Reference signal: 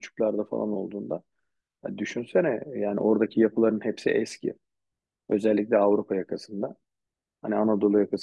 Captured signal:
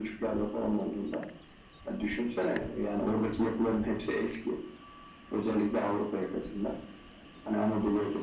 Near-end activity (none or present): none